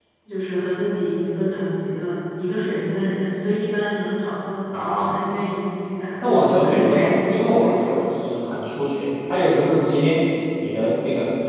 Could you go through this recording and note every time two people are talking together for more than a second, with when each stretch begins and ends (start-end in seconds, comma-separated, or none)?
6.2-7.9